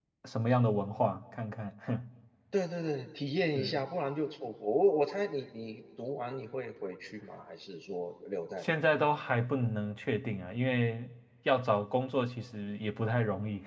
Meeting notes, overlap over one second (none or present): none